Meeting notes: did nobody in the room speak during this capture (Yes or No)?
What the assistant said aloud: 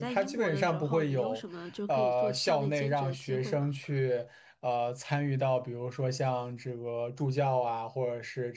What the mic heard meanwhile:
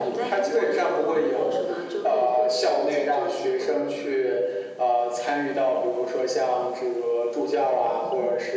Yes